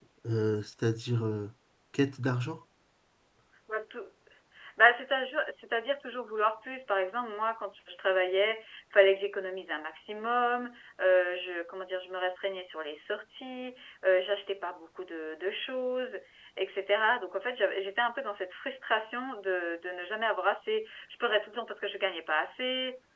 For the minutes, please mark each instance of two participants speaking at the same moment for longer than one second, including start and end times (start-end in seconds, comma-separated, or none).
none